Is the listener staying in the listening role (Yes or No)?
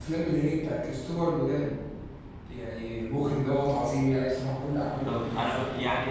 No